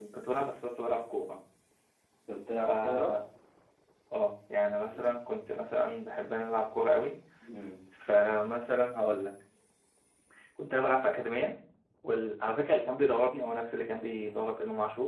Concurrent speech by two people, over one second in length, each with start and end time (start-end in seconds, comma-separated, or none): none